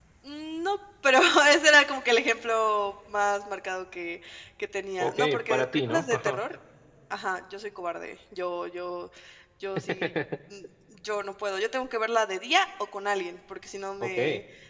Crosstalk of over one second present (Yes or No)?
Yes